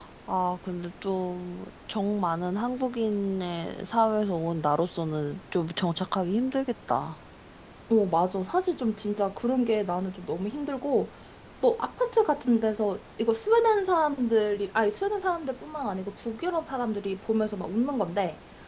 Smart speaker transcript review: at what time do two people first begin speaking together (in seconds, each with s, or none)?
none